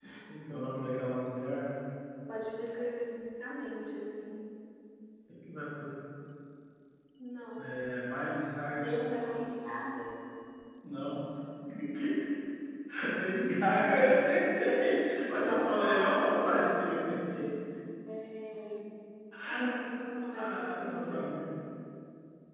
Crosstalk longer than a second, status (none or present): present